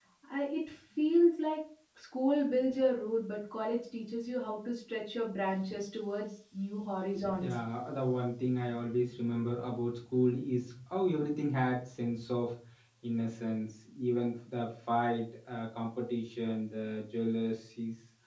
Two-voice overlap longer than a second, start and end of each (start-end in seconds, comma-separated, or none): none